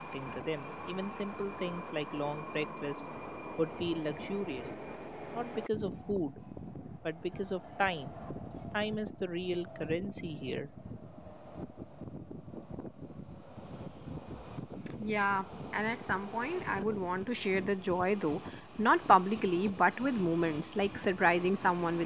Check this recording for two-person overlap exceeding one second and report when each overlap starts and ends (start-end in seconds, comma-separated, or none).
none